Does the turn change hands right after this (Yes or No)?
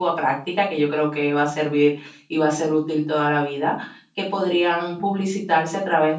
No